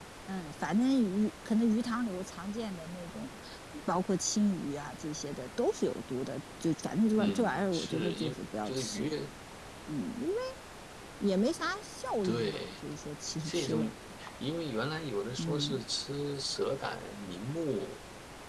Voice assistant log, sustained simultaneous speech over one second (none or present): present